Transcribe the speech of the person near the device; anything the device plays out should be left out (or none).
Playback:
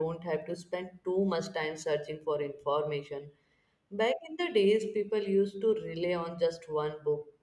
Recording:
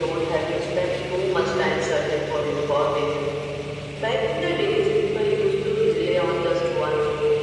none